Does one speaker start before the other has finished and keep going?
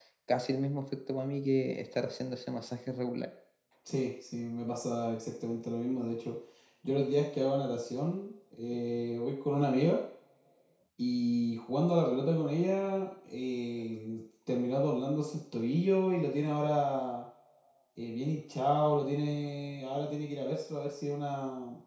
No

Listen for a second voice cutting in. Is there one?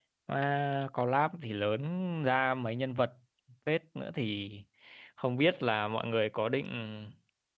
No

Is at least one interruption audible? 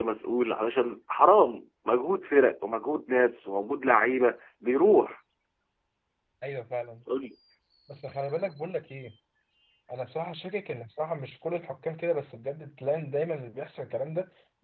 No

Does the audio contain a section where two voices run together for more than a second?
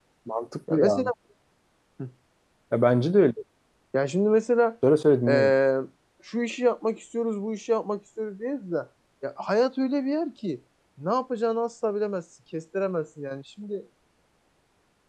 No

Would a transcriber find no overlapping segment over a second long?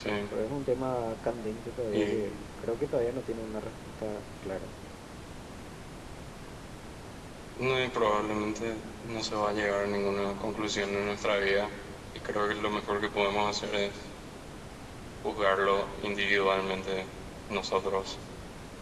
Yes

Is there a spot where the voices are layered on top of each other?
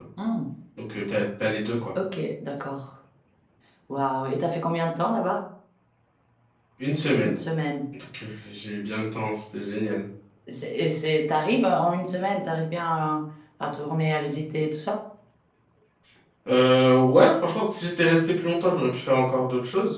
No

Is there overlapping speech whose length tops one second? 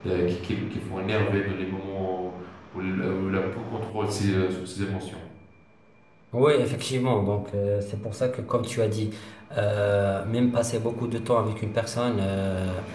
No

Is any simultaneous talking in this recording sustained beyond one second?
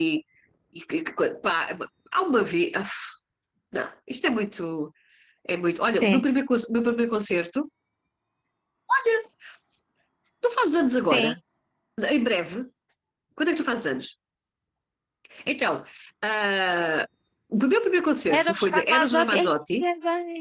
Yes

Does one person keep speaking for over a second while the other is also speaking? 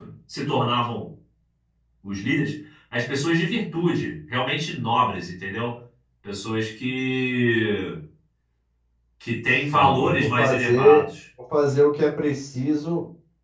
Yes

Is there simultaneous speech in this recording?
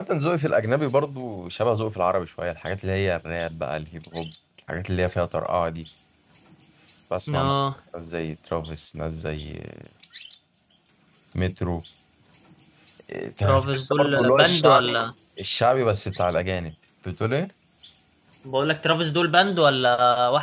Yes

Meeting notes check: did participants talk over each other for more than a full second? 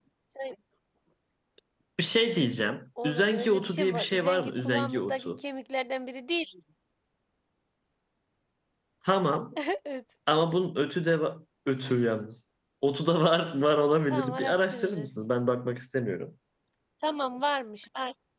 Yes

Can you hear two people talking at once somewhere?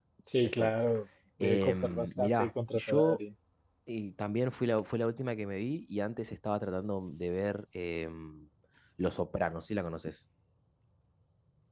Yes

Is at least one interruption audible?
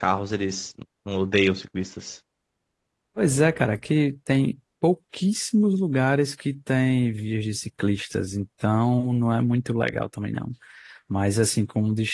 No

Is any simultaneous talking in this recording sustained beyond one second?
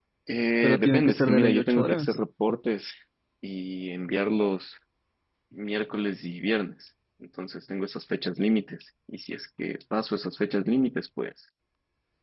Yes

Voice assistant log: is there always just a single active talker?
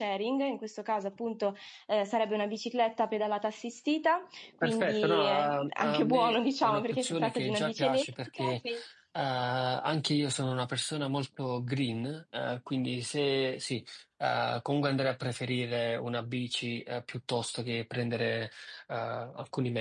No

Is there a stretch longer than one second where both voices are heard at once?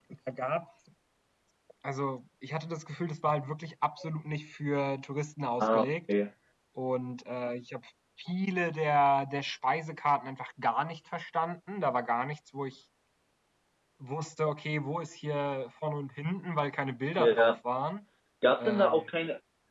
No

